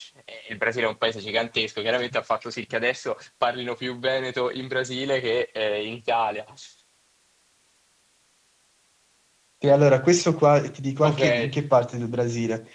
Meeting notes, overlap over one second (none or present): none